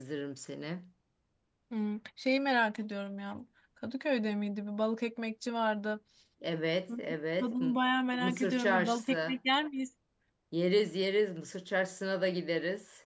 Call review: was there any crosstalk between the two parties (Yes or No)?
Yes